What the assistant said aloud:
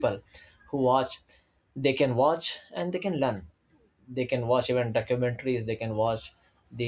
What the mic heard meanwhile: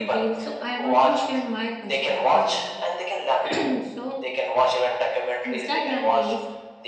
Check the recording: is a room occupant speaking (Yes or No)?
Yes